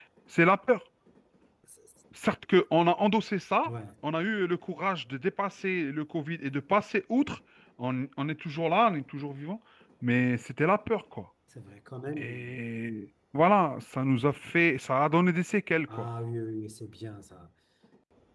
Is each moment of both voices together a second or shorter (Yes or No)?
Yes